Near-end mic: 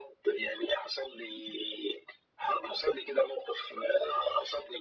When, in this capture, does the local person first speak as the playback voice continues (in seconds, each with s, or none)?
none